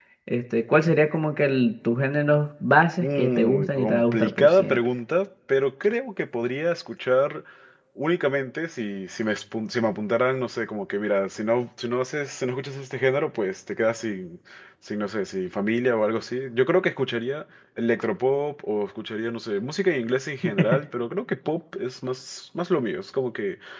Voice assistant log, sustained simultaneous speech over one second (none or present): present